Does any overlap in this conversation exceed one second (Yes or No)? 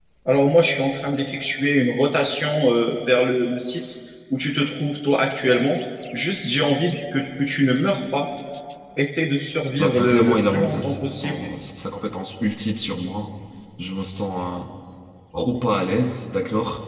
Yes